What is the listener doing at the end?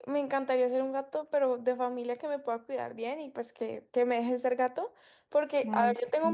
listening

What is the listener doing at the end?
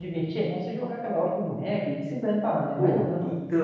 taking over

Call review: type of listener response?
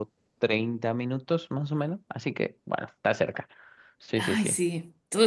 taking over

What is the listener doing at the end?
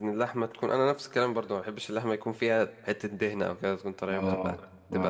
taking over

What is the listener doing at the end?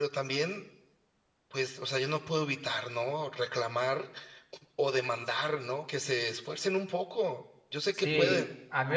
taking over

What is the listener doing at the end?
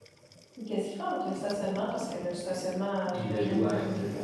taking over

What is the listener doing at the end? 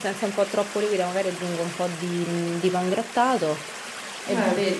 listening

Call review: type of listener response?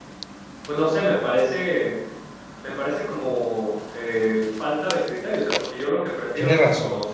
listening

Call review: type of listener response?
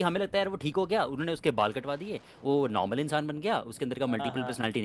listening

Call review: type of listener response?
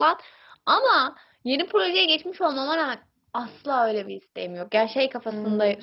listening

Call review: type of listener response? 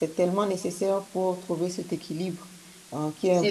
listening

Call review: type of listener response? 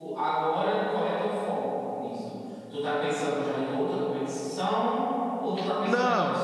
listening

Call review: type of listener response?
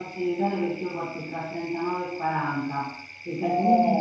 listening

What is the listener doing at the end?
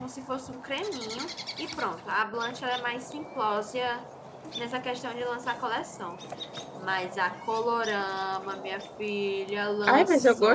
taking over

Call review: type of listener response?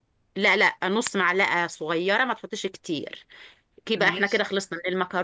listening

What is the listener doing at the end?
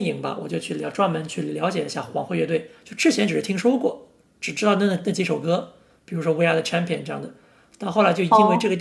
listening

